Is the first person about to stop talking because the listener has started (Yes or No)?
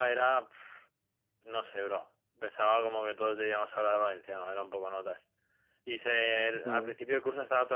No